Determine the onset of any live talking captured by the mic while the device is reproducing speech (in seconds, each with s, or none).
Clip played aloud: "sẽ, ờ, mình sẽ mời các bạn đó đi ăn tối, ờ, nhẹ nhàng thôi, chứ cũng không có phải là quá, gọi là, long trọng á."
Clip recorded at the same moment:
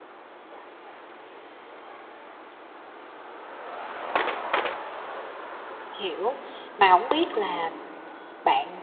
6.0 s